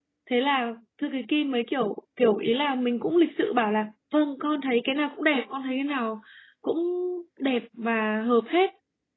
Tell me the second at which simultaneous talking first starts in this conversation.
none

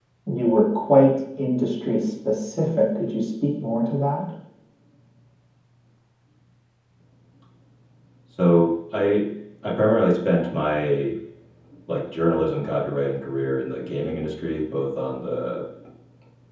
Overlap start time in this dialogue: none

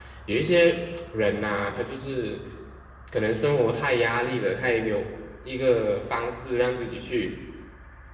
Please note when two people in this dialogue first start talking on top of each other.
none

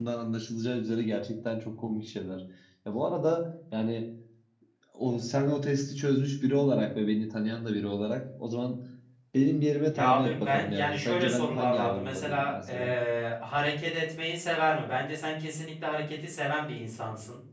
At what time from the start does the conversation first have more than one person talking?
9.9 s

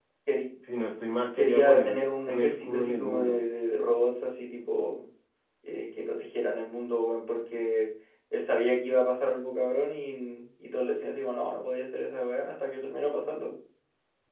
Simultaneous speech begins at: 1.4 s

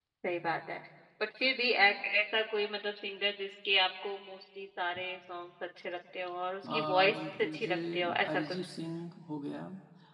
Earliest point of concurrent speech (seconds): 6.6 s

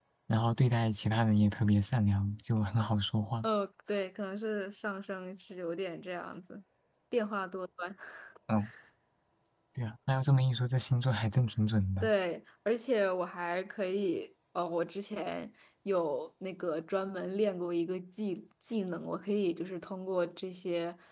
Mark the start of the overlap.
none

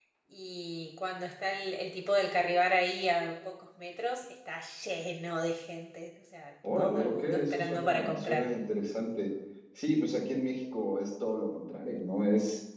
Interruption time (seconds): 6.6 s

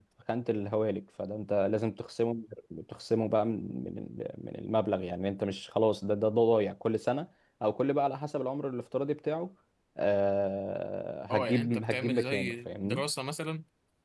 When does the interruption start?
11.3 s

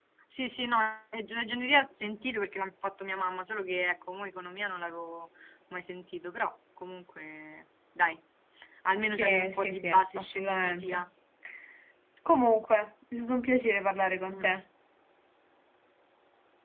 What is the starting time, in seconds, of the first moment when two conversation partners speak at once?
9.0 s

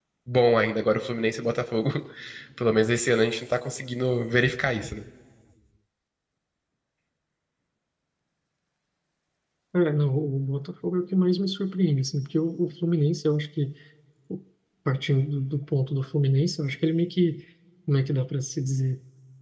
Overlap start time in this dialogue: none

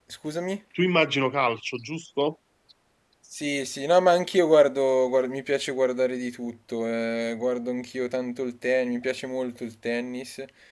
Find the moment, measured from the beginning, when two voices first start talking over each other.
none

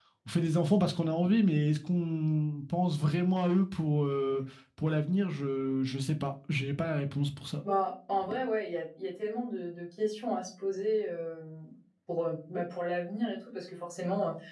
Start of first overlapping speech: none

